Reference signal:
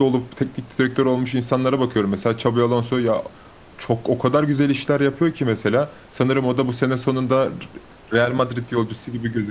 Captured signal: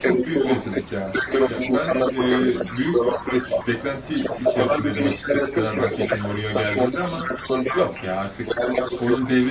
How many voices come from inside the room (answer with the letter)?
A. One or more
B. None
A